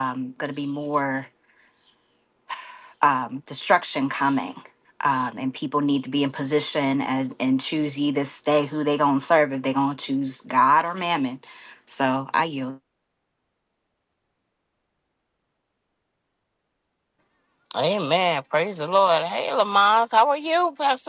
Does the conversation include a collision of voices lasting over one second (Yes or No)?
No